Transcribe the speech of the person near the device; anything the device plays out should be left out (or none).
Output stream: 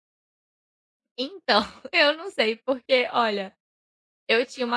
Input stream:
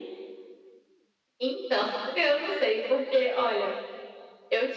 none